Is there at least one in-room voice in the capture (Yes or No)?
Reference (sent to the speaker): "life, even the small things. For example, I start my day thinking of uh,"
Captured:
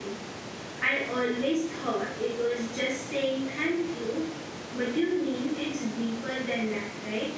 Yes